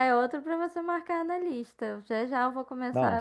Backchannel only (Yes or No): No